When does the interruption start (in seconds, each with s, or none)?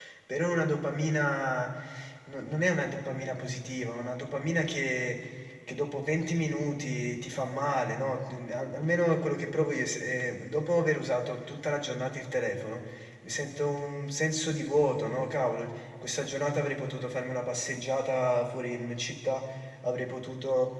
none